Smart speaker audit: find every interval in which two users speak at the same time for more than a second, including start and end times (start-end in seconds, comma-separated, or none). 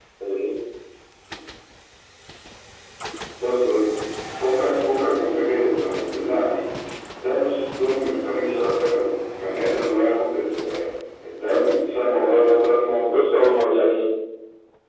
none